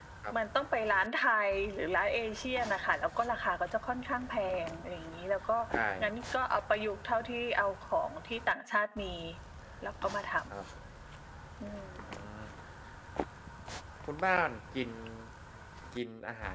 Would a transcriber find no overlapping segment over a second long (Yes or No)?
Yes